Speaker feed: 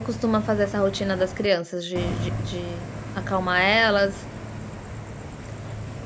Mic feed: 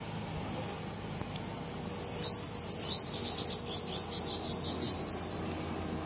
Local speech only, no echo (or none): none